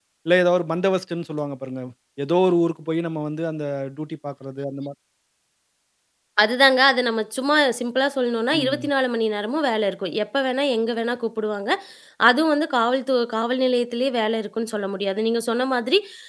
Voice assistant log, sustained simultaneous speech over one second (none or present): none